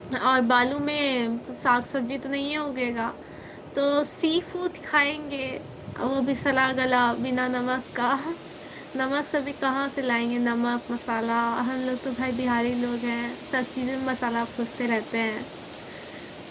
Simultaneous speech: No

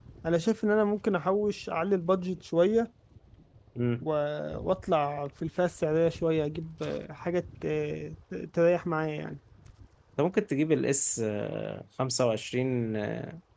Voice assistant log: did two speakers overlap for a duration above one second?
No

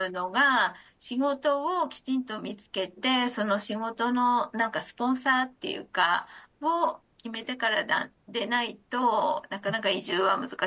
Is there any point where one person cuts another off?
No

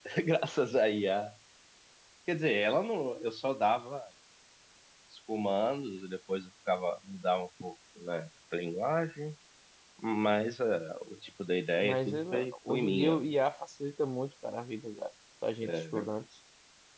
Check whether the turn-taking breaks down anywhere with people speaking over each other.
Yes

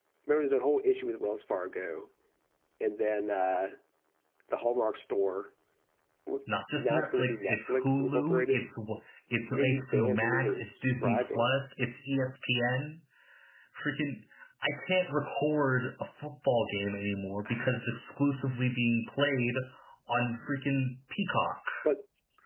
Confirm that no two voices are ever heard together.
No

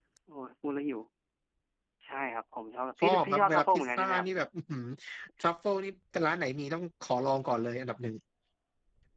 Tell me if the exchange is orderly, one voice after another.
No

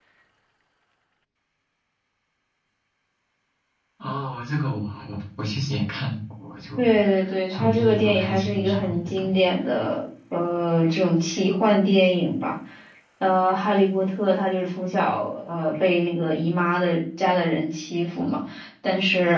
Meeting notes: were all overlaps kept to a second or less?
No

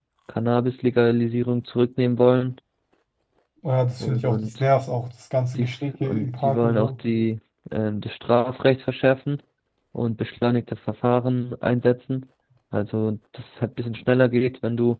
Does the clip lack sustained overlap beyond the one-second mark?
No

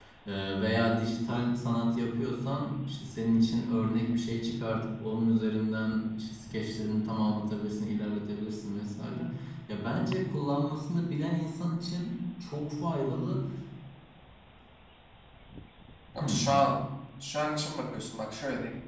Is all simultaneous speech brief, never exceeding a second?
Yes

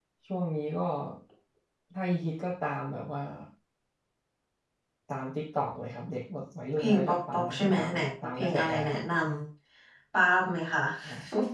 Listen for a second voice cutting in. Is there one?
Yes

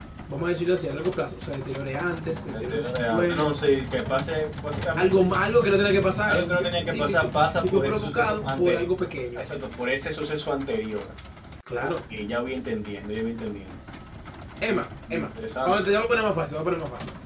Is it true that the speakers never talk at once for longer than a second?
No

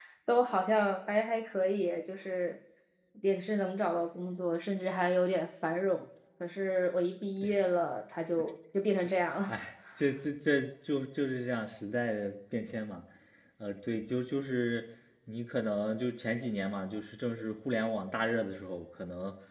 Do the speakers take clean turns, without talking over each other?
Yes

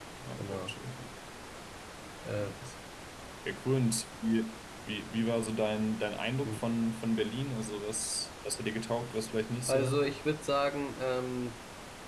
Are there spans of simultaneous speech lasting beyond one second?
No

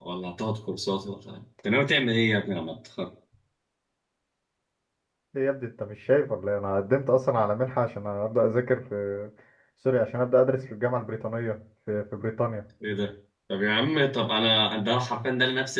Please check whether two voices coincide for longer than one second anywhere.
No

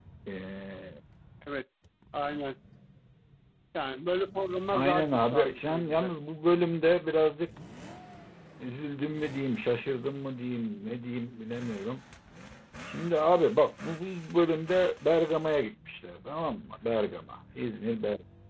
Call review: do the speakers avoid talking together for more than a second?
No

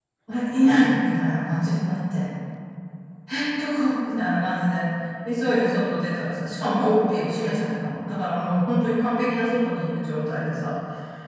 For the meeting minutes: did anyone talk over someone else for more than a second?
No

